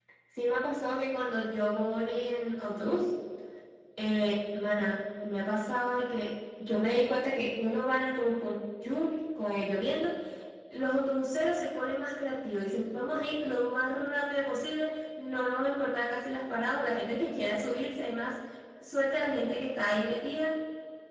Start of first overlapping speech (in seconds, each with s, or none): none